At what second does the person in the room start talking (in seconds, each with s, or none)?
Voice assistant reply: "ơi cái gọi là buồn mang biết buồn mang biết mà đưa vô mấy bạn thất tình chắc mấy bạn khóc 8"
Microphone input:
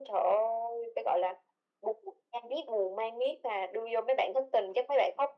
none